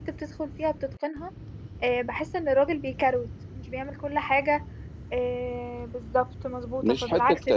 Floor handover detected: No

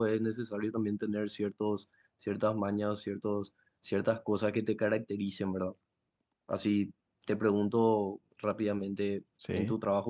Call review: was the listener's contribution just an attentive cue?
Yes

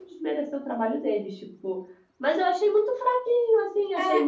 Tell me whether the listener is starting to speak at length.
No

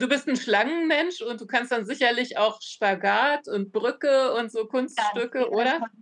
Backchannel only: No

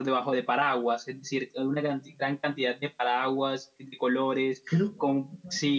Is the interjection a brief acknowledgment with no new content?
Yes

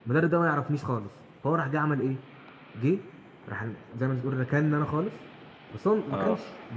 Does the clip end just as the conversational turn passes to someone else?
No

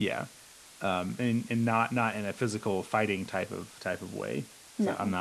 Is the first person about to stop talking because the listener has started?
No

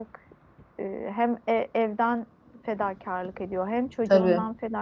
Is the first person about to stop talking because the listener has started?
No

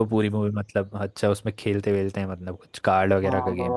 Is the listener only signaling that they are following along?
No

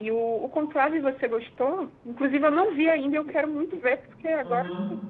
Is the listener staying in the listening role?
No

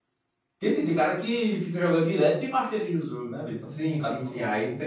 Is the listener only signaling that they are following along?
No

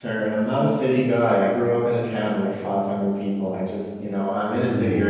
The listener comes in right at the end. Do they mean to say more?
No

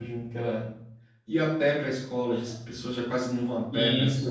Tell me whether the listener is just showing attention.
No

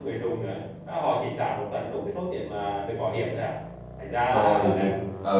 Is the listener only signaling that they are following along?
No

